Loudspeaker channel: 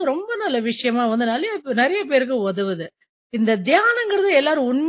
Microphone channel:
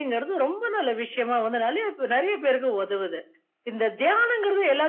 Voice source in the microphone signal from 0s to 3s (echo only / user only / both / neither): echo only